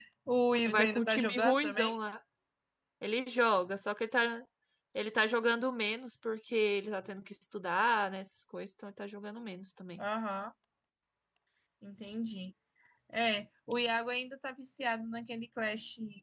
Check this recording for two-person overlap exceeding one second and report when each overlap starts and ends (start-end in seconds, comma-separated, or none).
0.6-2.0